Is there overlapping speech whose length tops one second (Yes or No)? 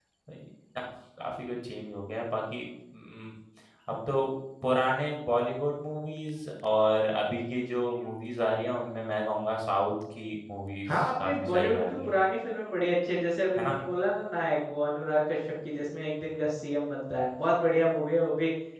Yes